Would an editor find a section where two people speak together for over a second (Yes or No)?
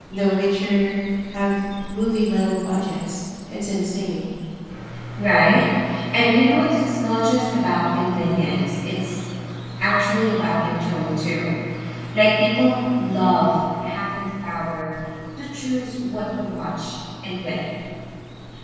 No